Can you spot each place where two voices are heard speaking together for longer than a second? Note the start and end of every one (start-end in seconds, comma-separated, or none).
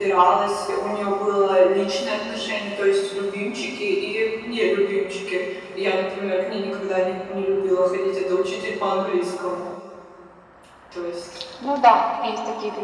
none